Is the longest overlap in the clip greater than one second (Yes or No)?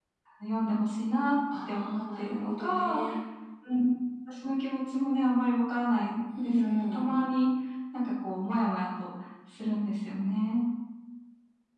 Yes